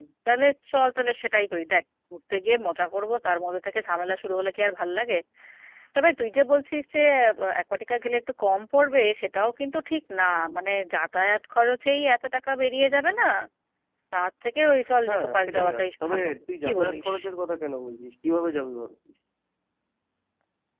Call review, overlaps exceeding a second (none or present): present